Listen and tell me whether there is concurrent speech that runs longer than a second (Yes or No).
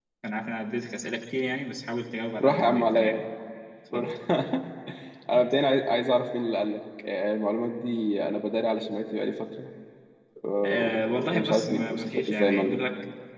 Yes